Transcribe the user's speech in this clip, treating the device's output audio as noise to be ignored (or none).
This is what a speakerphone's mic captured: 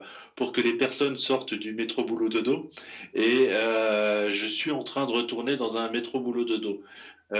none